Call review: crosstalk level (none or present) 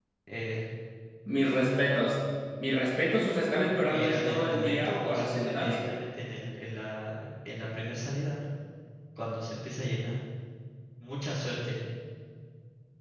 present